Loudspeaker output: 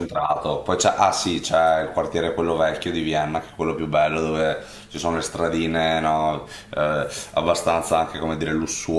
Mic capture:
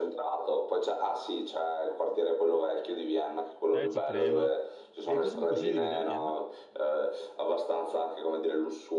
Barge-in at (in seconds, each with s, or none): 3.7 s